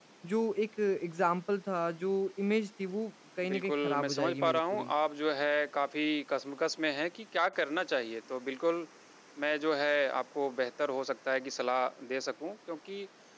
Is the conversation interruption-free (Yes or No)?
No